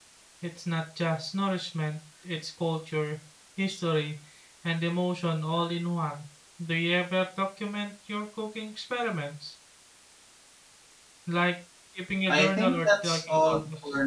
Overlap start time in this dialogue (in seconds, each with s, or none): 12.3 s